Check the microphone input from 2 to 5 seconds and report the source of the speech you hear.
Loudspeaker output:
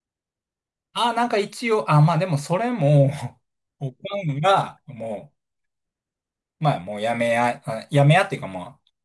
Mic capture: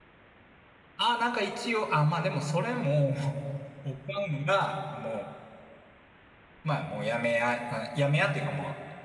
echo only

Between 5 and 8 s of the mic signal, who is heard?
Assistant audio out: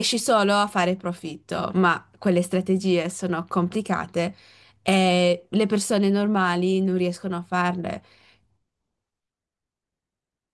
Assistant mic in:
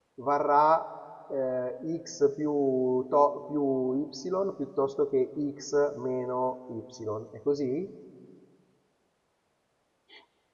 user only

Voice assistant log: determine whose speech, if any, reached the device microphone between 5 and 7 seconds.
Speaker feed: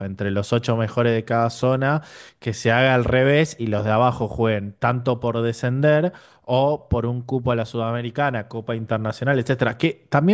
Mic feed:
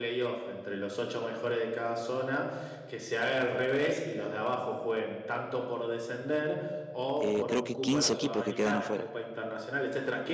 echo only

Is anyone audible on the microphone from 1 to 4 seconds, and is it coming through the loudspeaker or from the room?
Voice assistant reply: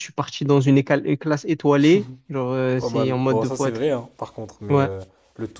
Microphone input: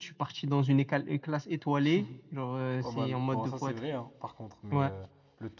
echo only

